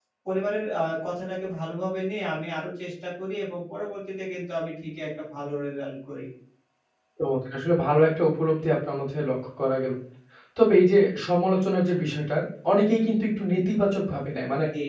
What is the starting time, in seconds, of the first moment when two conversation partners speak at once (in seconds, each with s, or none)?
none